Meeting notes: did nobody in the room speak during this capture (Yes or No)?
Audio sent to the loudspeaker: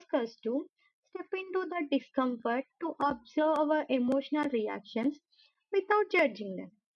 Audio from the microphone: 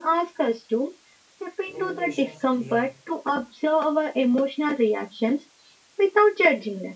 No